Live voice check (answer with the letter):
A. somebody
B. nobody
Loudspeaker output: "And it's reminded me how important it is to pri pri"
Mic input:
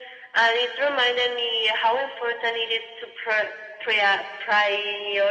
B